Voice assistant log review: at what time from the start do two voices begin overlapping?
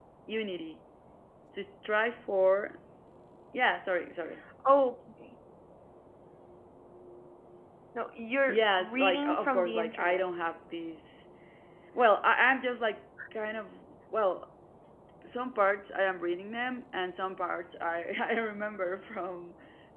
8 s

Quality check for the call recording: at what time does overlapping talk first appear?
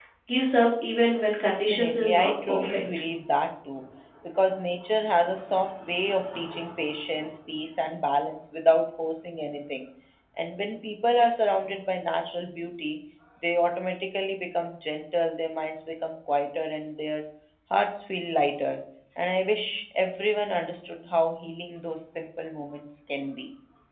1 s

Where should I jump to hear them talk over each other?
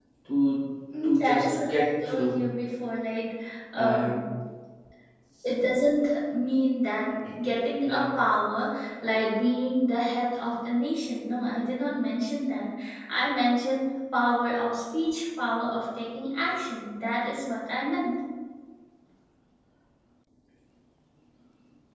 1 s

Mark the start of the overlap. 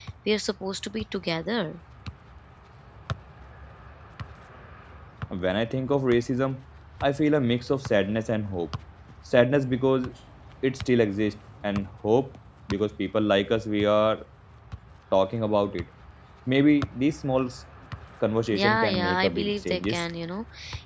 19 s

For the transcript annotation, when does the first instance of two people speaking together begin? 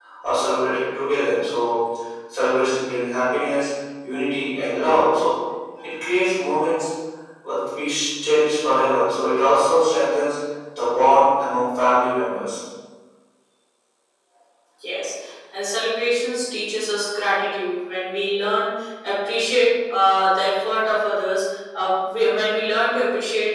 none

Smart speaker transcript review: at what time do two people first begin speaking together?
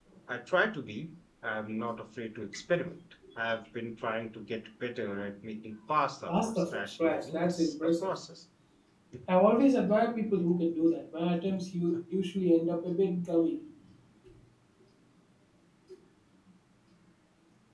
6 s

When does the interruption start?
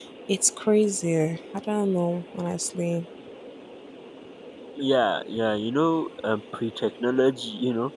none

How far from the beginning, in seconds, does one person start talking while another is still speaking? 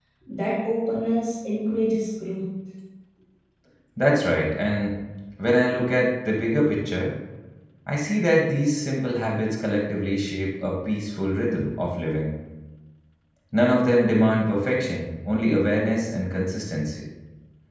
none

